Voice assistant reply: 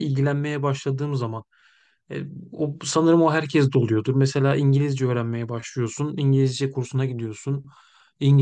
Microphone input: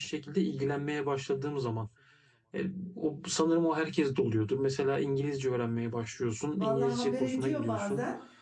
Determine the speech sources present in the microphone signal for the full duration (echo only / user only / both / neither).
both